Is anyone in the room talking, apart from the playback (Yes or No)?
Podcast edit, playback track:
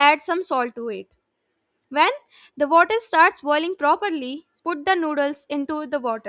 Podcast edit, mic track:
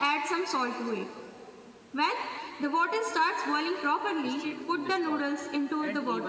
Yes